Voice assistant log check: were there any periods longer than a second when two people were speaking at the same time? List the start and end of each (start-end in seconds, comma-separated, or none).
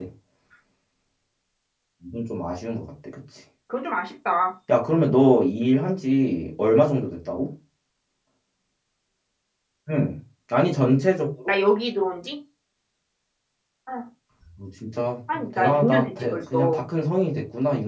15.3-16.8